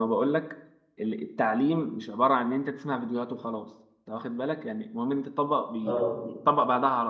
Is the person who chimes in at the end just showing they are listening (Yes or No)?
Yes